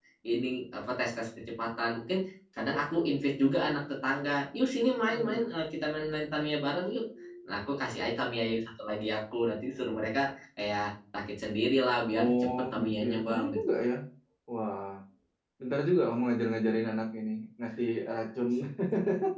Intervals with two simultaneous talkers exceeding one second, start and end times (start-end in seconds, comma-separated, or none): 12.2-13.4